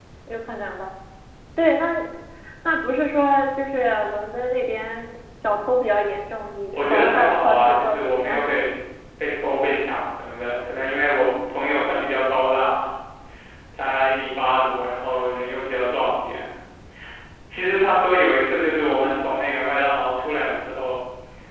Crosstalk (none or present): present